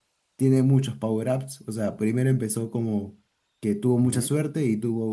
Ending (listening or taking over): listening